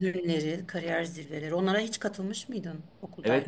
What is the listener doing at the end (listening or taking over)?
taking over